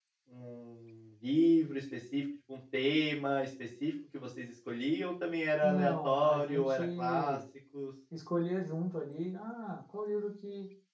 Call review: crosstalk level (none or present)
present